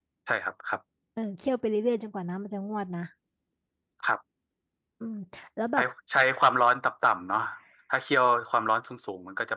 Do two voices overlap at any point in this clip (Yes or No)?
No